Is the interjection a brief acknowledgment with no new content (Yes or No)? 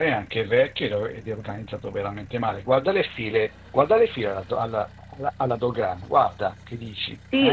No